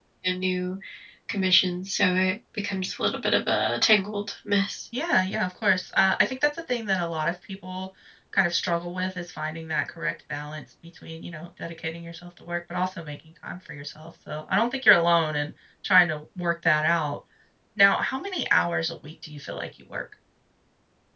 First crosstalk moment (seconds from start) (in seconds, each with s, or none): none